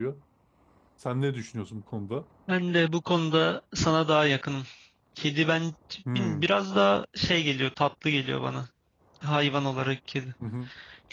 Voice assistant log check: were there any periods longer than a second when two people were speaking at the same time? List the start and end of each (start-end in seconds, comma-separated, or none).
none